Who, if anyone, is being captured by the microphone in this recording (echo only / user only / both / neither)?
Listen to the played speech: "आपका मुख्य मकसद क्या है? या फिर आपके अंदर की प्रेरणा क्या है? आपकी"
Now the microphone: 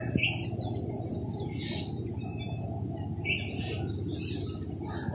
neither